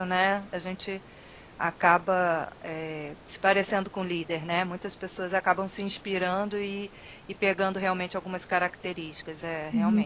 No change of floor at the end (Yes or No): No